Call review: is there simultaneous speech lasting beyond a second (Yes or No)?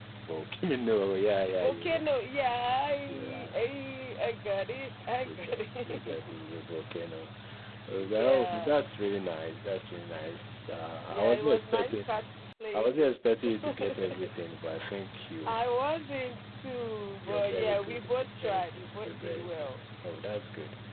Yes